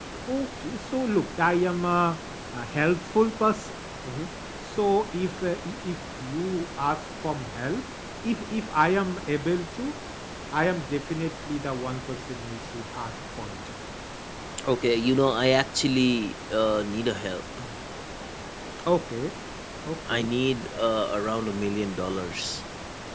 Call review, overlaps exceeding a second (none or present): none